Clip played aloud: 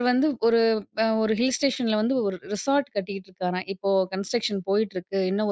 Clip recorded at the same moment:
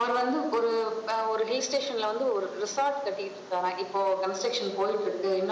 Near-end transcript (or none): none